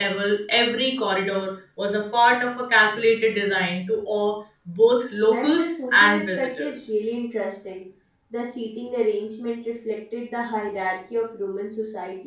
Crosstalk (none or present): present